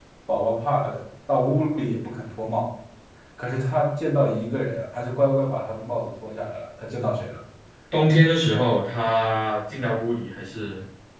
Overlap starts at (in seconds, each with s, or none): none